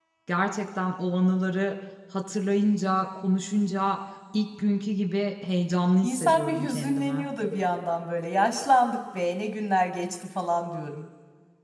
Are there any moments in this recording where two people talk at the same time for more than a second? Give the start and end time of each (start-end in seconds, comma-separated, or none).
6.0-7.3